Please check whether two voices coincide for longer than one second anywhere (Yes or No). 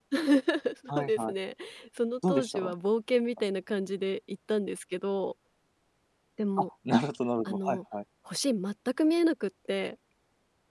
No